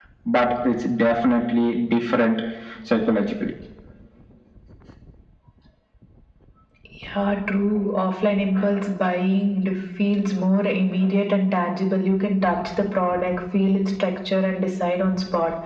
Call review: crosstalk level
none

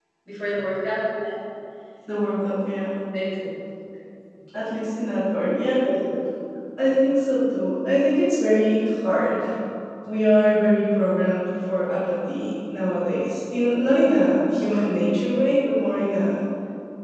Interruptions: none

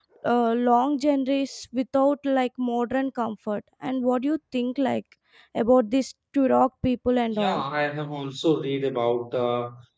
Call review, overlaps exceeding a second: none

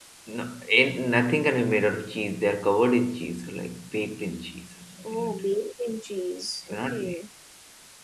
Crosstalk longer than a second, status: none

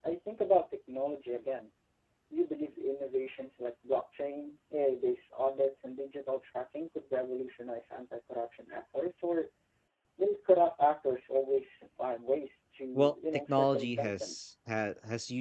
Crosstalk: present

